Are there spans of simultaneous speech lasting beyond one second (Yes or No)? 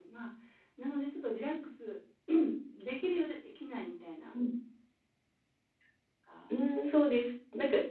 No